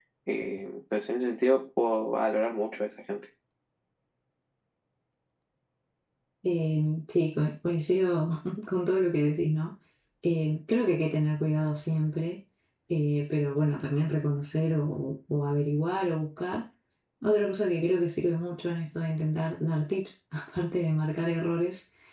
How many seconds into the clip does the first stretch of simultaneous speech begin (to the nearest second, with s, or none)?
none